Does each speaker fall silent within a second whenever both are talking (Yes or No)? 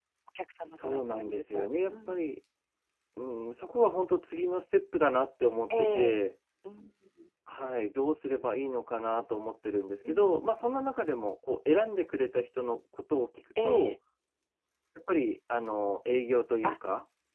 No